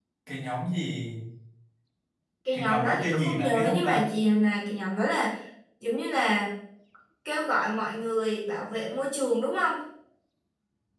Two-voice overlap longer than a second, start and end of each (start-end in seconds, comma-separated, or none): 2.5-4.1